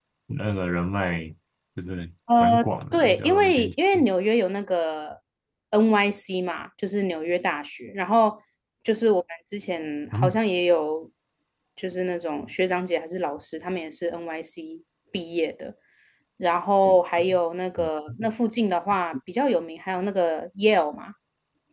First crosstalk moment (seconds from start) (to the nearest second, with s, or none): 2 s